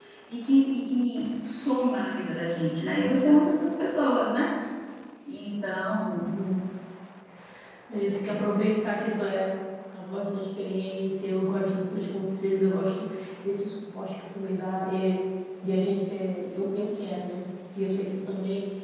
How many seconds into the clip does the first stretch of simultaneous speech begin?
none

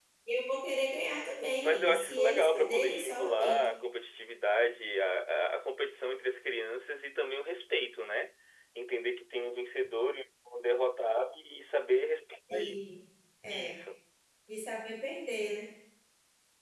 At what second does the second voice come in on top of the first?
1.6 s

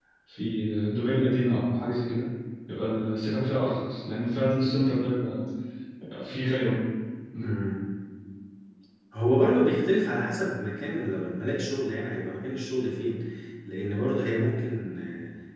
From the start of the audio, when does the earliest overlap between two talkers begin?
none

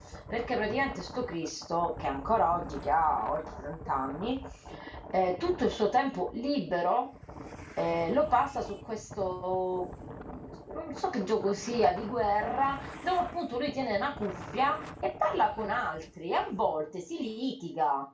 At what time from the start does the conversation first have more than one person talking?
none

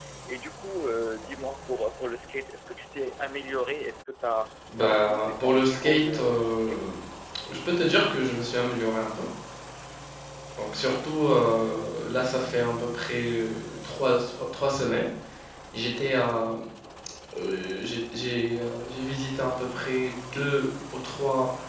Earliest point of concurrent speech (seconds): 4.9 s

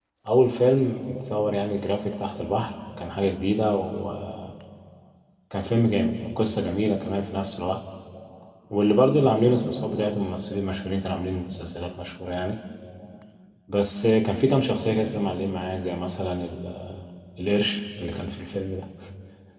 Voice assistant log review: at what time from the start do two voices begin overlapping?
none

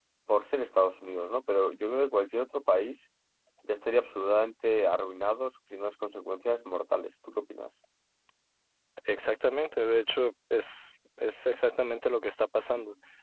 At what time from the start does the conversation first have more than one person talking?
none

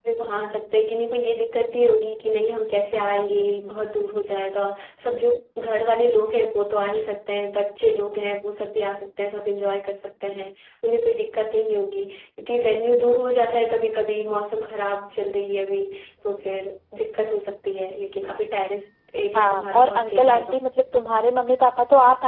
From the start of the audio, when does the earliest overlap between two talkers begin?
19.4 s

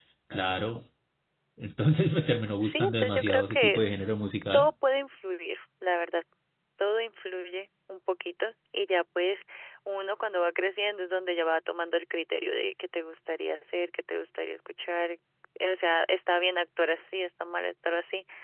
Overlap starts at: 2.6 s

